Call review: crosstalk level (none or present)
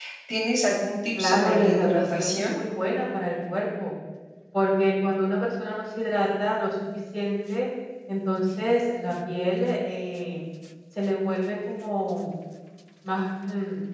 present